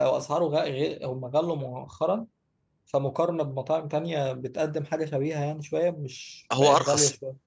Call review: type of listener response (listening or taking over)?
listening